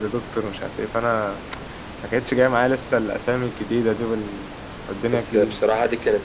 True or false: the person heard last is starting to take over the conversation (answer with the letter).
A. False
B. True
B